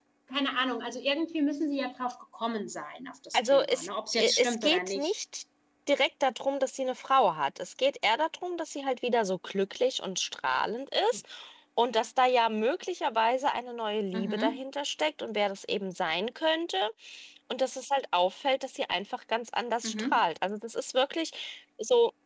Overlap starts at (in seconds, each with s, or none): 3.3 s